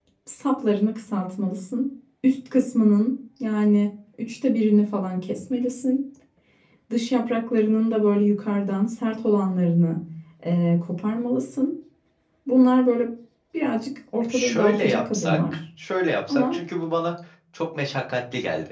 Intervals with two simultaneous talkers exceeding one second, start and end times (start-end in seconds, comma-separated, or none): 14.3-15.6